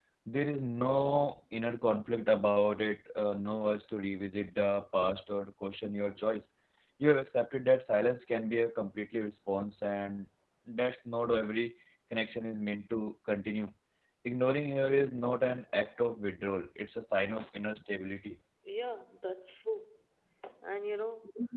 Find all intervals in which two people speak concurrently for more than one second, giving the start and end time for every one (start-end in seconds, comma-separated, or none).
none